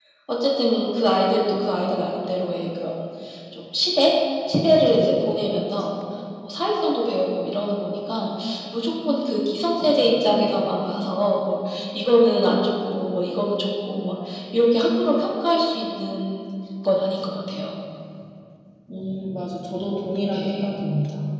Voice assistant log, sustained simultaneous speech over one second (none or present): none